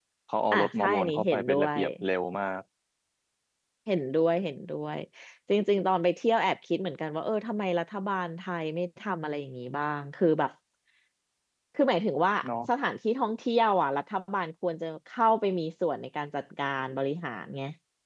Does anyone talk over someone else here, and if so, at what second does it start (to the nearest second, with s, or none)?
1 s